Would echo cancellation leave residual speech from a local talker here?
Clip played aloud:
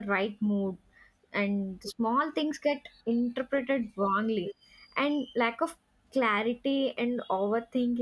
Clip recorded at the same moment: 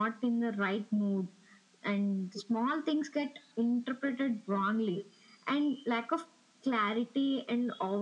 No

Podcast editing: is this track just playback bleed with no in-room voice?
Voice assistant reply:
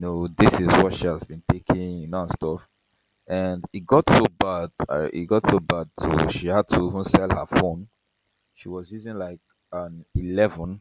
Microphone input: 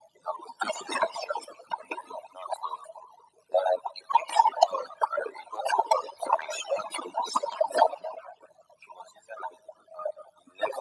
Yes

